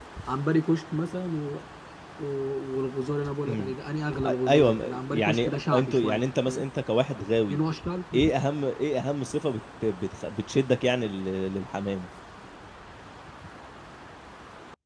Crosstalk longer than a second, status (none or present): present